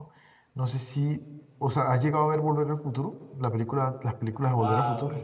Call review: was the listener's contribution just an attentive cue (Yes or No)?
No